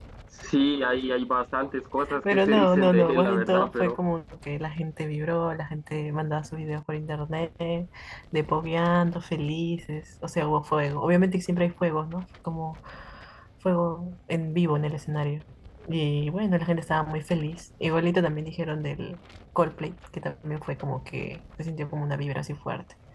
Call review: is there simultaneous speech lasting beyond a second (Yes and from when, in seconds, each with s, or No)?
Yes, from 2.1 s